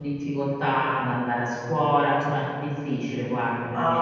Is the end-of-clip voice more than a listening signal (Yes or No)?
Yes